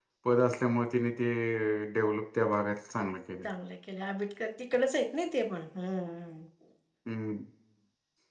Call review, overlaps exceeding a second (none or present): none